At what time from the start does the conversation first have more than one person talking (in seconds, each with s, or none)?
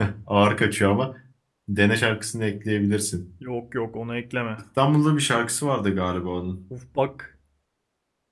none